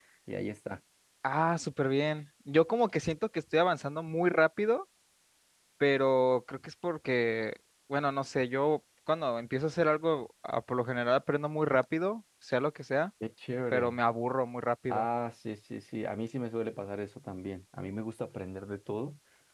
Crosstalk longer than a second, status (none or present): none